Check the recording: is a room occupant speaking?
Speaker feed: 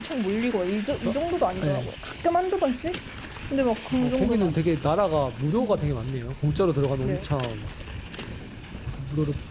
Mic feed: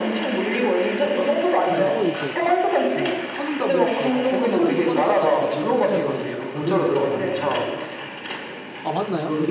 Yes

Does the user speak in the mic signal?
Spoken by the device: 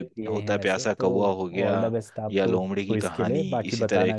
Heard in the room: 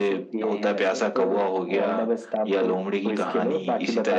No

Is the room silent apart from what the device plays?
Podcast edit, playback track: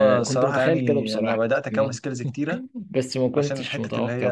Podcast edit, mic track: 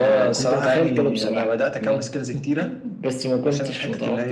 Yes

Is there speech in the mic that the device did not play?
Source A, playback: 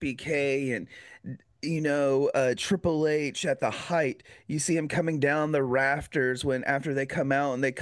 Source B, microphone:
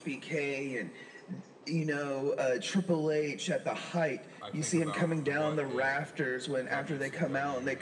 Yes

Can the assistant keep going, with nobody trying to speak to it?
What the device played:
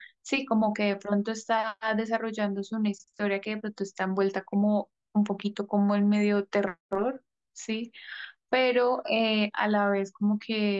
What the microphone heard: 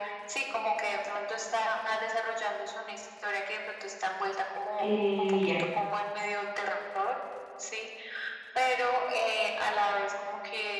No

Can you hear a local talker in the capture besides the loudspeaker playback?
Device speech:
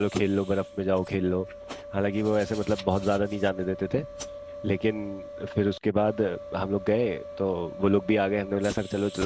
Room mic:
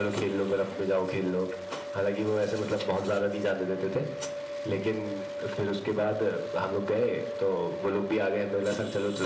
No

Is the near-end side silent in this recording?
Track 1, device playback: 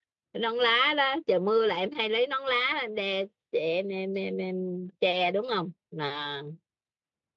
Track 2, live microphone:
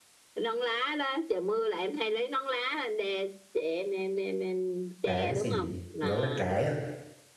No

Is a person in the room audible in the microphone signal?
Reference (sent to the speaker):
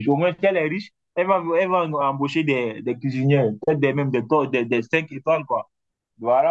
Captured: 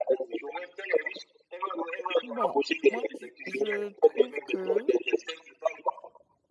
Yes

